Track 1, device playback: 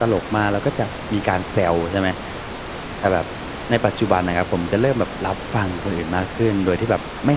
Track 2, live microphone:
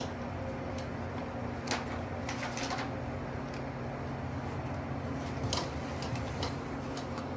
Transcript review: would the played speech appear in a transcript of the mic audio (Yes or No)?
No